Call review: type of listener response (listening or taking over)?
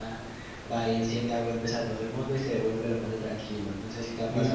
taking over